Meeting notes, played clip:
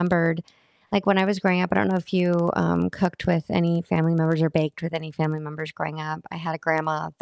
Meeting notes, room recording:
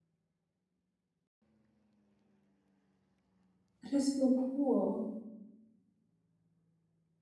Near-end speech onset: 4 s

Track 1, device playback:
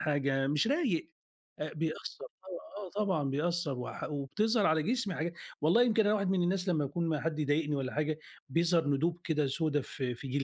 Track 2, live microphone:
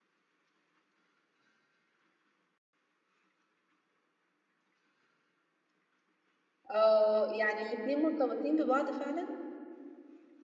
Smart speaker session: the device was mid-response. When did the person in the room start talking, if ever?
7 s

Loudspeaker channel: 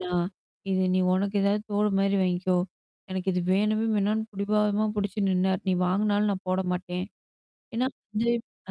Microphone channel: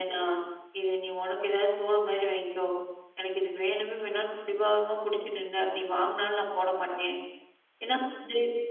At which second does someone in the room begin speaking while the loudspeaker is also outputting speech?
none

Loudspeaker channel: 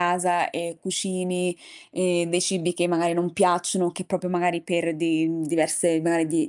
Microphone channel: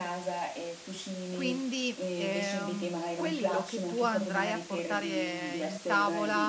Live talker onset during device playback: 1 s

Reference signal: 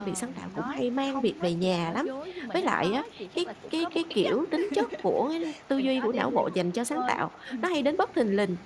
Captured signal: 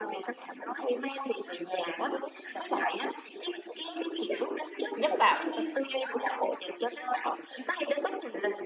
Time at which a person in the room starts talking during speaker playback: 5 s

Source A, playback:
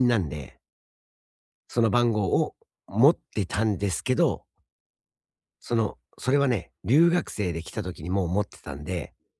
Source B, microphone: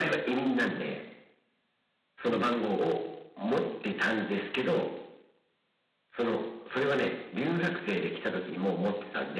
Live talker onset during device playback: 2 s

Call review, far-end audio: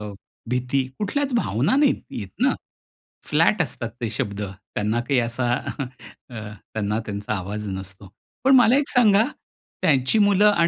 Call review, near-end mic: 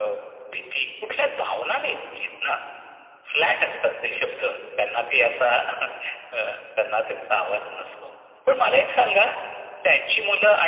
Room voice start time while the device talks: none

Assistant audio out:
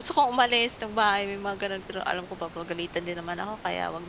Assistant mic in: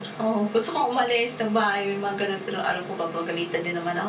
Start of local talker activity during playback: none

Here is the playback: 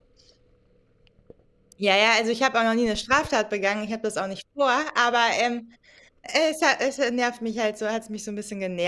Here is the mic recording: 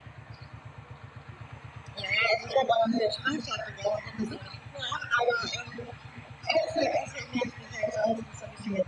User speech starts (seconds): none

